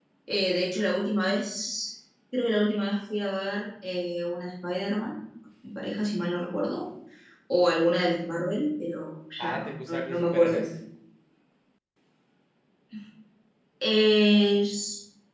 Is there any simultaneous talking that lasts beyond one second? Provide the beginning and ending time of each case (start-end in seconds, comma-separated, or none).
9.4-10.7